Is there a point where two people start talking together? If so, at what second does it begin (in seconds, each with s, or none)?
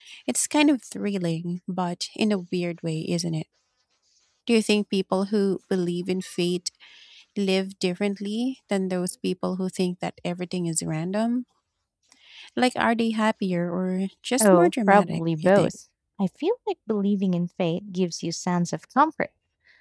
14.4 s